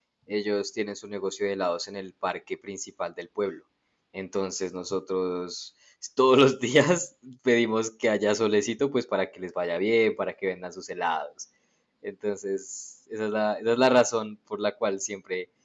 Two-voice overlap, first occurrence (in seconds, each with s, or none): none